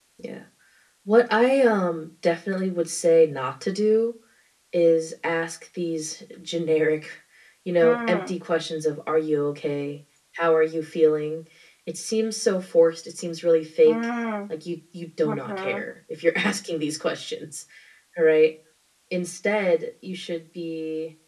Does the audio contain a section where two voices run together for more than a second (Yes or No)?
No